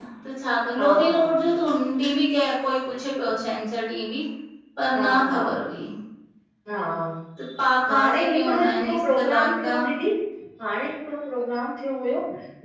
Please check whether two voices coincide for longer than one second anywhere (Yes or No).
Yes